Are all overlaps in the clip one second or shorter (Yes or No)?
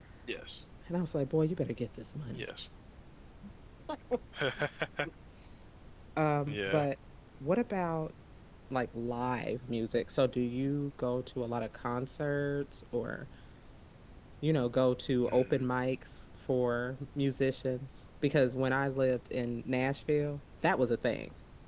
Yes